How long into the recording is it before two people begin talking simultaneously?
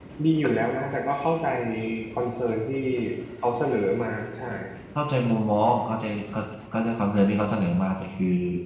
none

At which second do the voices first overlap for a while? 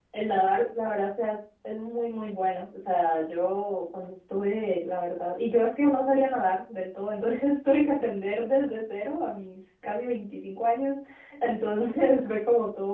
none

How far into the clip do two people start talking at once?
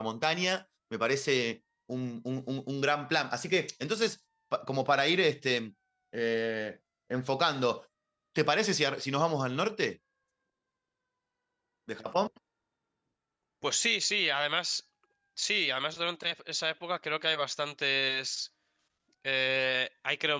none

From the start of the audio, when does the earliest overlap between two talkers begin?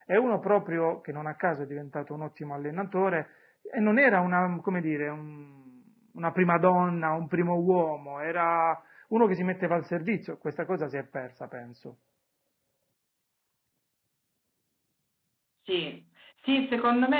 none

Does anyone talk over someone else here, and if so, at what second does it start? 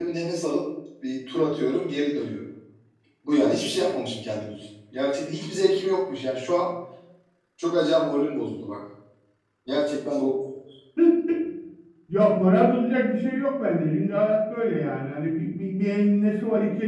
none

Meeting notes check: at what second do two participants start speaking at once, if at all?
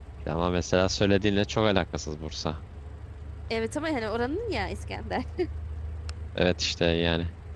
none

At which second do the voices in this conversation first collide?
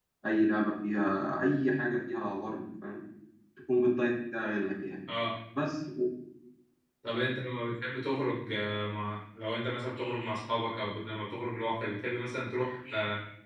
none

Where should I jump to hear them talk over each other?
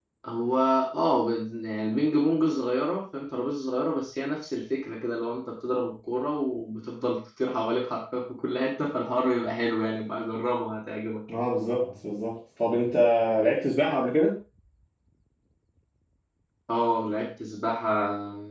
none

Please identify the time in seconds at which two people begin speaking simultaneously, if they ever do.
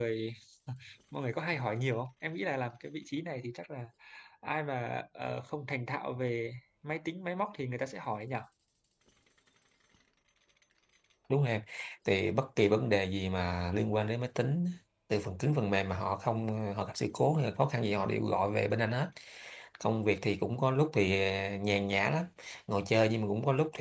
none

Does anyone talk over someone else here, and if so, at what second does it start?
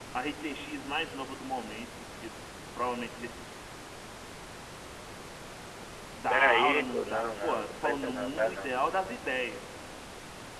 6.3 s

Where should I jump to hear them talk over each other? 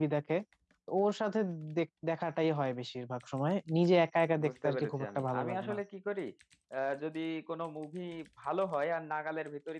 4.4 s

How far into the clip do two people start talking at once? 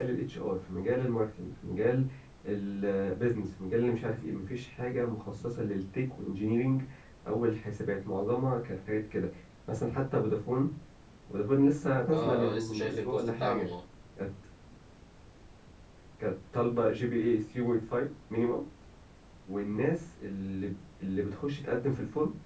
12.1 s

